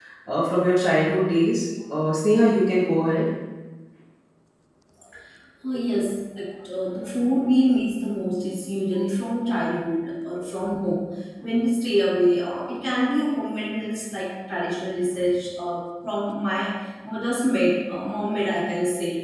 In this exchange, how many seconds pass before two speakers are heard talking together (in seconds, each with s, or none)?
none